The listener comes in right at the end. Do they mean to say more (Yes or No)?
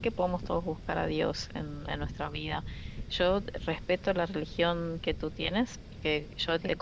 No